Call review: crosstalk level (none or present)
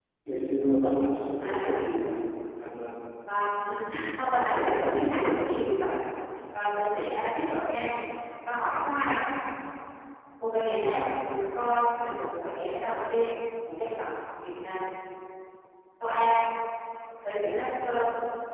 present